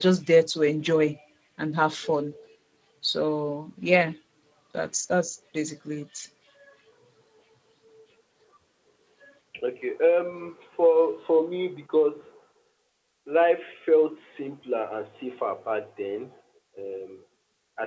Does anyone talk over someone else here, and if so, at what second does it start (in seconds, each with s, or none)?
none